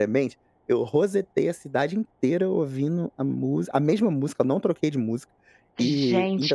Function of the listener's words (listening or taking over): taking over